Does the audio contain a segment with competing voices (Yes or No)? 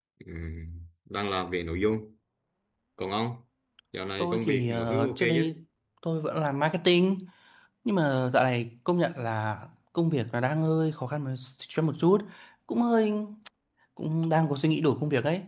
Yes